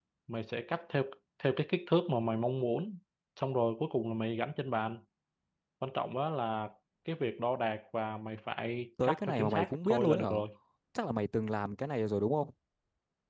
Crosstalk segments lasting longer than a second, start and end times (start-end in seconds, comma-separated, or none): 9.0-10.3